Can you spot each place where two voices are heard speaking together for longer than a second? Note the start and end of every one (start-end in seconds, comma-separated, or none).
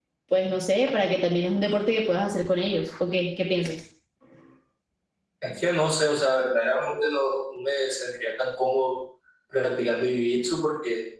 none